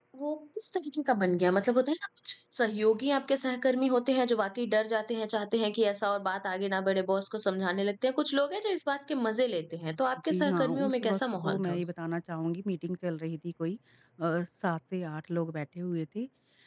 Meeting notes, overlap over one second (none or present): present